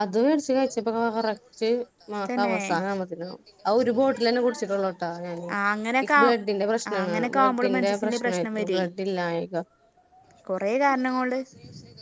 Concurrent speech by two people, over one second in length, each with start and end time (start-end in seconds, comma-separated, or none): 6.9-8.8